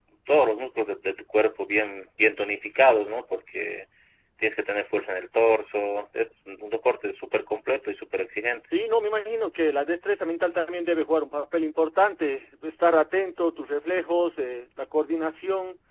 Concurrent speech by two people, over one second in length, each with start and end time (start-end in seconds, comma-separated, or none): none